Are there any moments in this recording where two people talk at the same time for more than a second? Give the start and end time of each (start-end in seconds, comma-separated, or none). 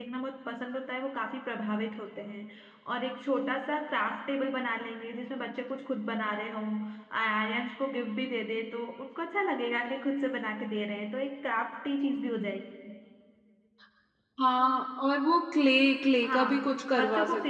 none